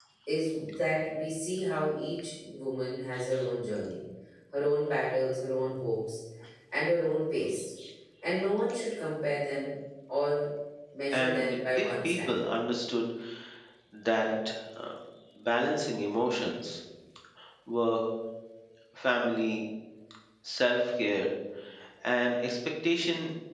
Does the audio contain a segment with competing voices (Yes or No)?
Yes